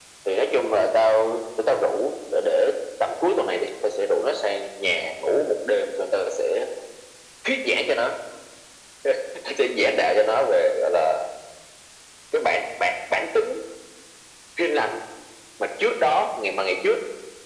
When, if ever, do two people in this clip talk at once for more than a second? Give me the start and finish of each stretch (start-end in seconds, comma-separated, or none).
none